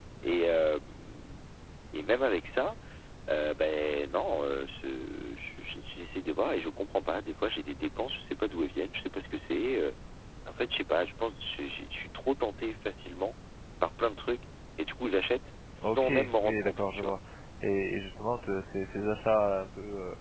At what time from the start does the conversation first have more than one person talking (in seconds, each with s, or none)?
15.8 s